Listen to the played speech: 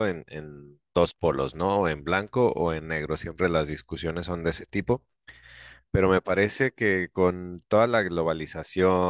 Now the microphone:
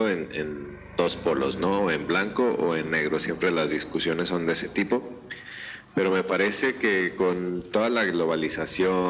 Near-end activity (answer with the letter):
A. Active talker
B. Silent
B